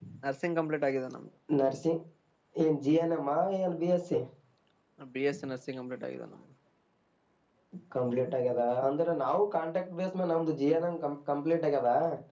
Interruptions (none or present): none